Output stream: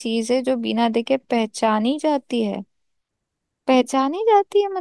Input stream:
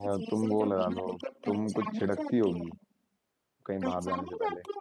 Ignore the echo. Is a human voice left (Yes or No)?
Yes